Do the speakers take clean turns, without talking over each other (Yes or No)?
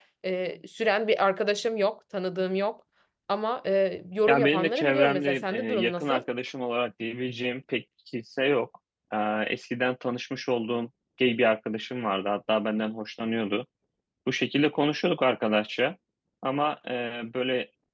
No